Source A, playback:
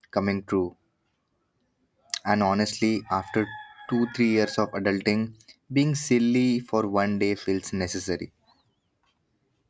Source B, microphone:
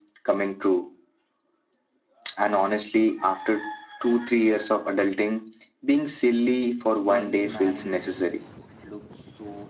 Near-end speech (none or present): present